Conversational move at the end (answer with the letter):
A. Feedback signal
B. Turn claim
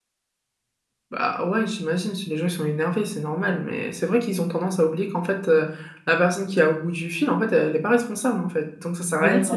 B